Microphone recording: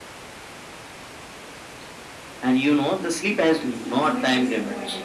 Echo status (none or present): present